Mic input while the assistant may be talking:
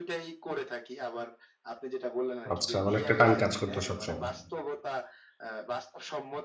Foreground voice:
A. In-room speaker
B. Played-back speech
A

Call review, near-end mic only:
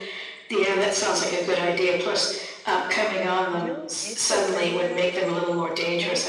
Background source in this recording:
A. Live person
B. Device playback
A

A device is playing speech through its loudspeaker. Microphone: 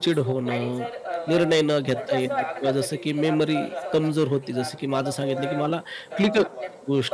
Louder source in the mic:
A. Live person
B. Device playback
A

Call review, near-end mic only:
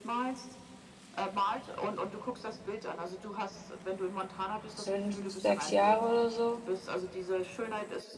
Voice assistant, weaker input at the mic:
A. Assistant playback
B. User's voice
A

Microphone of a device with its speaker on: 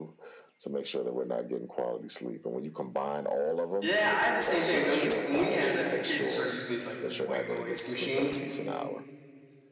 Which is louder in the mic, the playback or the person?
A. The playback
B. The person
B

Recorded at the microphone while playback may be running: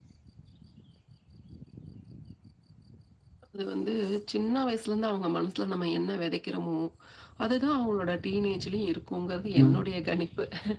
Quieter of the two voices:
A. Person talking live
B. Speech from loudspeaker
B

